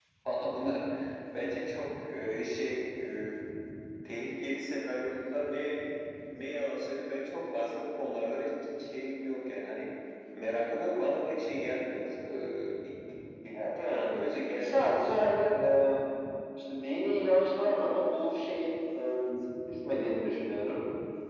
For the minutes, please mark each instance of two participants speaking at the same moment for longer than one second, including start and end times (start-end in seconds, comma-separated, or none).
none